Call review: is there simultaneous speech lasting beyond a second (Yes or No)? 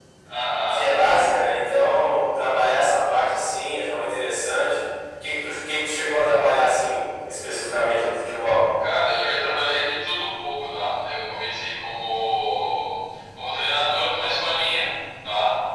No